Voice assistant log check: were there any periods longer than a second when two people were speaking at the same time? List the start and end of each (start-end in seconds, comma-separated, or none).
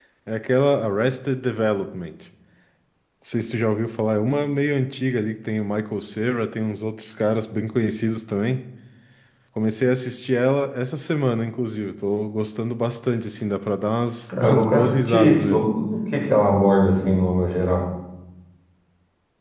14.3-15.7